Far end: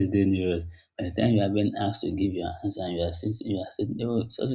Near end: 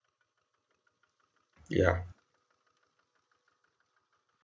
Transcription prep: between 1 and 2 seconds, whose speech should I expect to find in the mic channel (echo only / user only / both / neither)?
user only